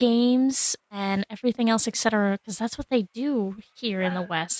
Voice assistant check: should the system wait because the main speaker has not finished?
No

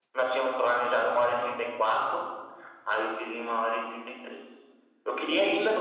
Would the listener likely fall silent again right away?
Yes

